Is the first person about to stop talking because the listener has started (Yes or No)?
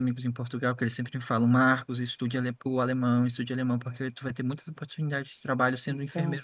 No